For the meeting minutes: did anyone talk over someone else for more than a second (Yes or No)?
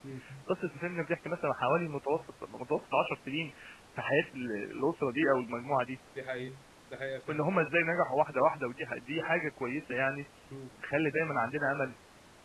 No